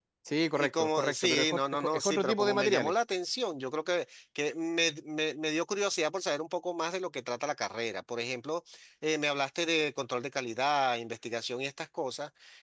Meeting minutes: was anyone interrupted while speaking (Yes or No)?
Yes